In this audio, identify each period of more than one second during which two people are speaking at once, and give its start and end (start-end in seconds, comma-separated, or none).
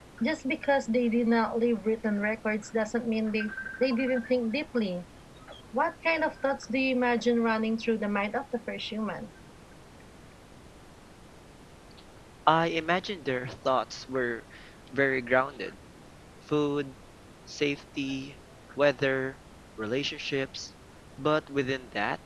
none